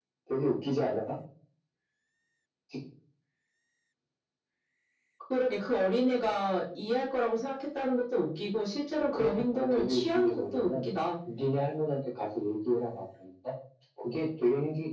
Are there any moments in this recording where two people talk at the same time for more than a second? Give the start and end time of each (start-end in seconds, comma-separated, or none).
9.1-10.8